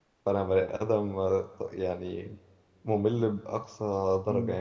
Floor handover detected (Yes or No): Yes